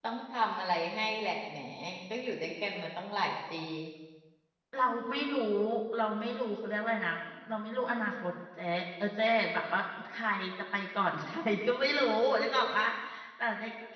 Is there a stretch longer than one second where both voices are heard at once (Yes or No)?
No